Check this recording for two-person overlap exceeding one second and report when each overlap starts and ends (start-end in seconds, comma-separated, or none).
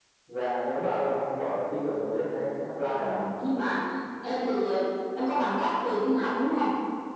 none